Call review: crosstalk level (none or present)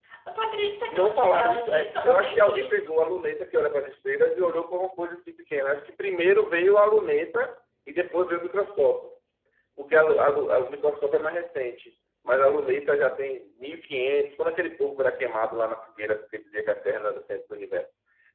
present